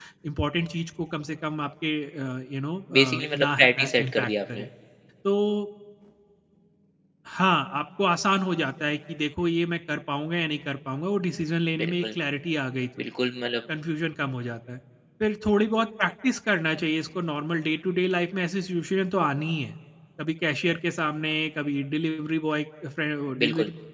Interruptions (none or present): present